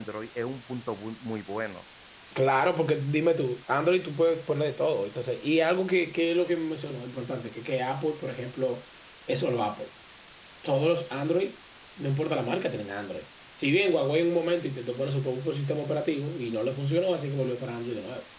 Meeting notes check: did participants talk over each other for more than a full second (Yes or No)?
No